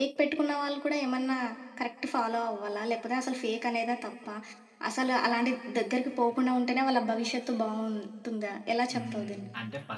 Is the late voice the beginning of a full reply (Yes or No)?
Yes